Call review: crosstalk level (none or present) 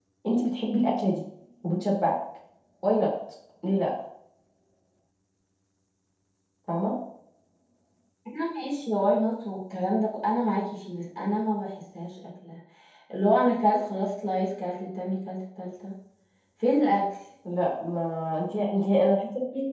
none